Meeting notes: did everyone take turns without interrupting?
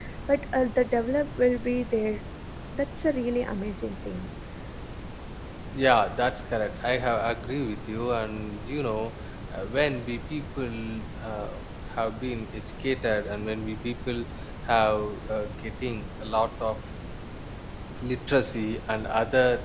Yes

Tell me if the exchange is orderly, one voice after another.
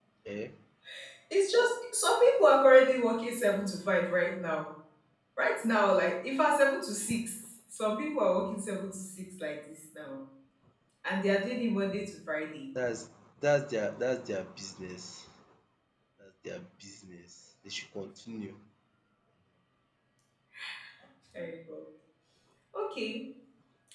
Yes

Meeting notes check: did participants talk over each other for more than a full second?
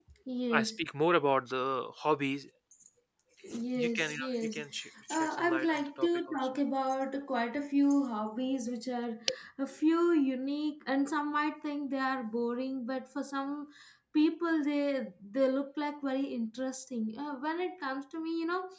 Yes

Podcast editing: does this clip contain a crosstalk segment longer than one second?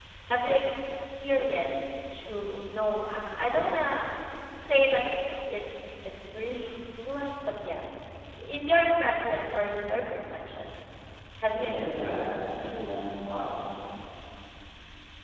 Yes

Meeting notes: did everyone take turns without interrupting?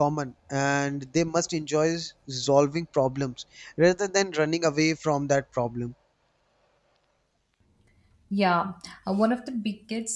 Yes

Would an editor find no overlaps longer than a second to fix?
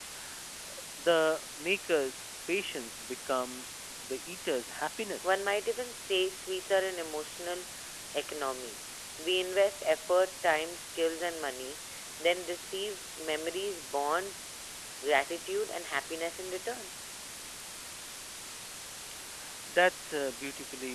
Yes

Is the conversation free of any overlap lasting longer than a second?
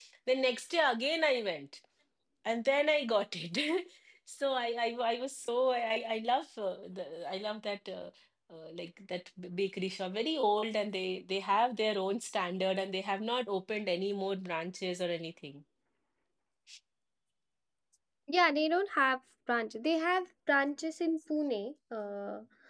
Yes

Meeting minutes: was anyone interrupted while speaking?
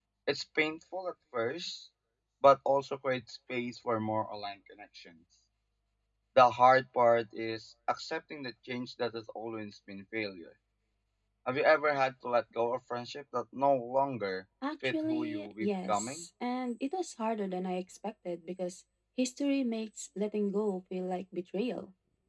Yes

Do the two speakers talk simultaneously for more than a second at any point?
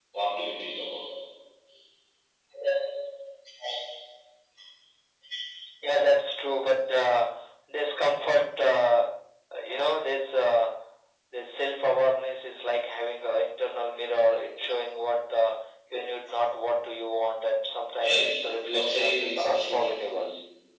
Yes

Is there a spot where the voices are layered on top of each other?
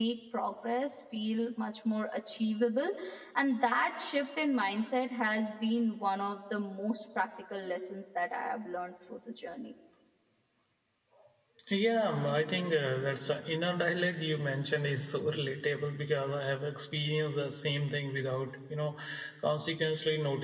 No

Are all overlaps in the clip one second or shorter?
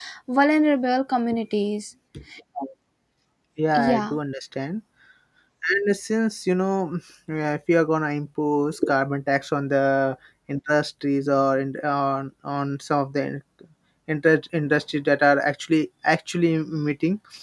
Yes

